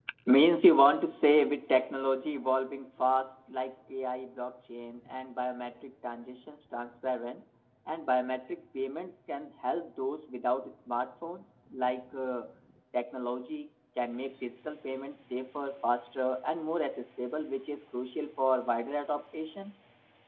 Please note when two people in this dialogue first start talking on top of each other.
none

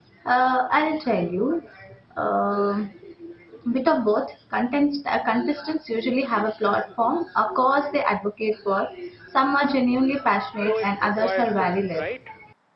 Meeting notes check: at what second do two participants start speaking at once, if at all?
10.7 s

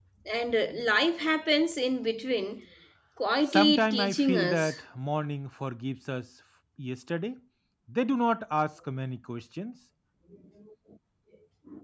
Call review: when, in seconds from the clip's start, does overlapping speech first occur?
3.5 s

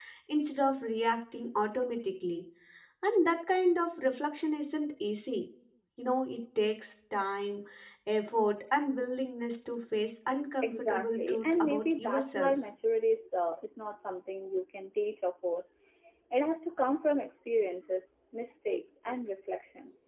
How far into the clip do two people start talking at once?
10.6 s

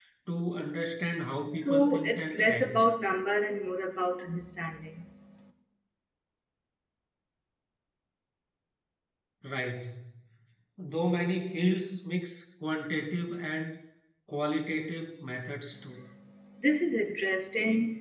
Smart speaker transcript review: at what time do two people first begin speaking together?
1.6 s

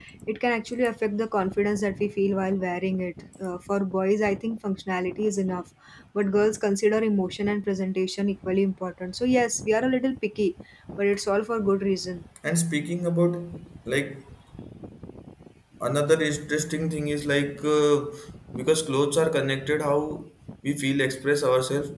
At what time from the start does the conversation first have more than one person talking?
none

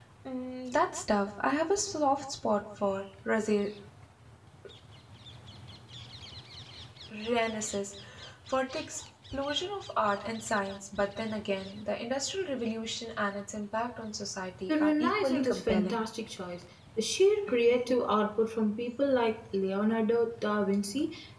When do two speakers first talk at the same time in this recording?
14.7 s

